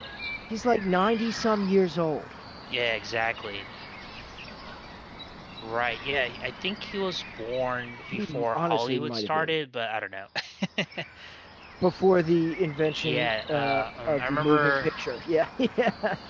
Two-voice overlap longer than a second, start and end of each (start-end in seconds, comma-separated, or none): 8.1-9.5, 13.0-14.9